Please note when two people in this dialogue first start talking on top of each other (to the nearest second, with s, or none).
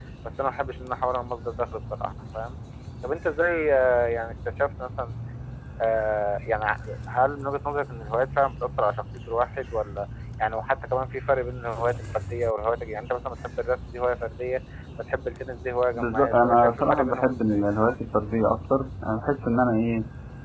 16 s